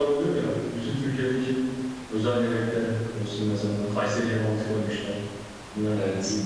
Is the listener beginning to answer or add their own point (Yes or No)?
No